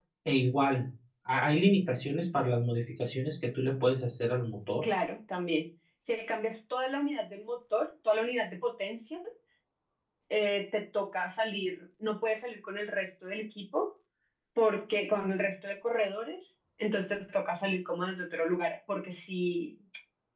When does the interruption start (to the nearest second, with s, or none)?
none